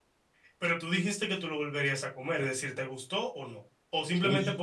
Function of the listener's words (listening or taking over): taking over